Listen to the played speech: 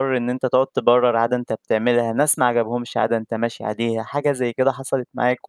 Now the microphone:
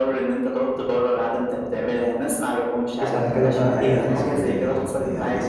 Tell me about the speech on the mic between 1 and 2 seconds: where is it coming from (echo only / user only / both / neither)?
echo only